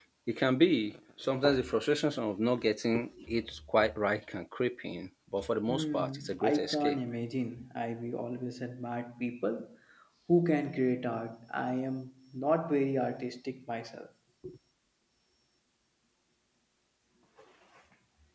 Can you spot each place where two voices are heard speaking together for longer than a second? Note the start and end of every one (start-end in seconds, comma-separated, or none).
5.7-7.0